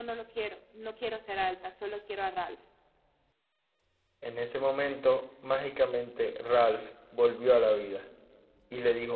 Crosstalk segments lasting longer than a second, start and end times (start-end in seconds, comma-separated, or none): none